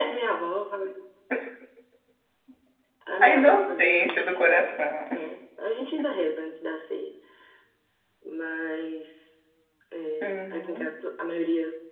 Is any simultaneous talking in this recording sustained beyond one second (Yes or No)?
Yes